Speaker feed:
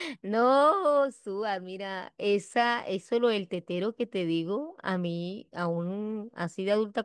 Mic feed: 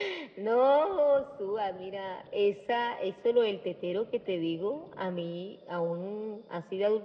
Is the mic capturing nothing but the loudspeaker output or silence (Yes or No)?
Yes